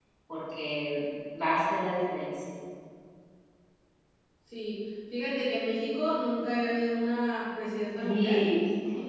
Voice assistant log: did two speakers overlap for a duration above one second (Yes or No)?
No